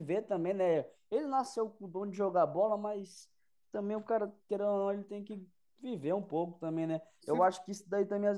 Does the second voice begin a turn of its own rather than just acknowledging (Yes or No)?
No